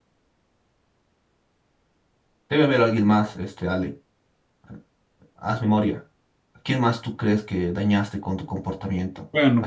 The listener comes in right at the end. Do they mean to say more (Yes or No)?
Yes